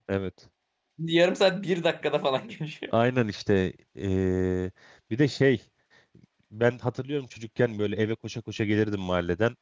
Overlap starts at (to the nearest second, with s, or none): none